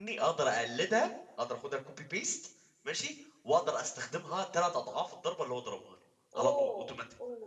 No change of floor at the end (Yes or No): No